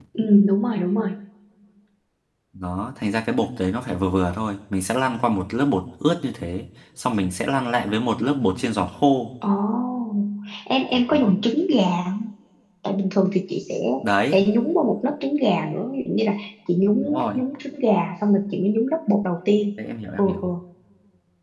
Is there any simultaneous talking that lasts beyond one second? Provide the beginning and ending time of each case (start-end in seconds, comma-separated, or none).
none